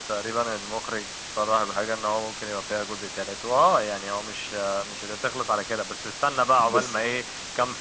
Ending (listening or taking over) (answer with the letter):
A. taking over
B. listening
B